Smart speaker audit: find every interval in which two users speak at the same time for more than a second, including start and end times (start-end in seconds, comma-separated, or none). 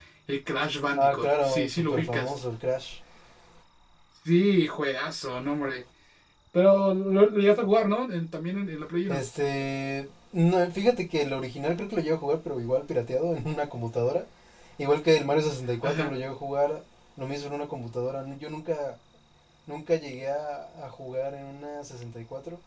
1.0-2.3